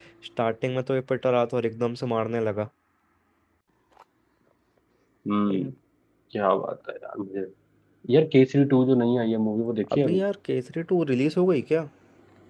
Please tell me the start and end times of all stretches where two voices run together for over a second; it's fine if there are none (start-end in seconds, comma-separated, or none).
none